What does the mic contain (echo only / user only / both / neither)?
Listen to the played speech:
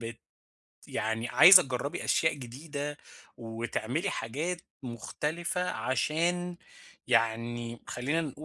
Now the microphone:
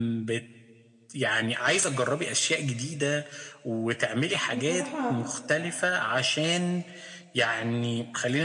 both